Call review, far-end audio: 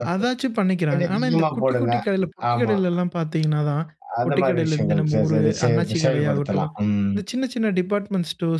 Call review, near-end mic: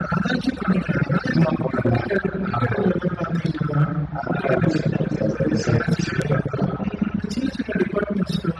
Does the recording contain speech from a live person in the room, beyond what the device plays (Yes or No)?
No